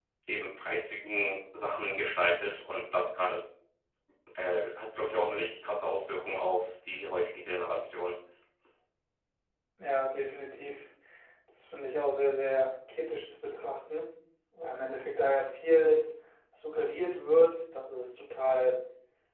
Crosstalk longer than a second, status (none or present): none